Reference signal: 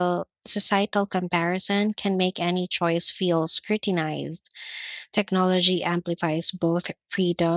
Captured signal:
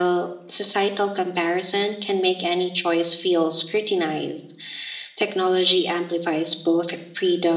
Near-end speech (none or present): none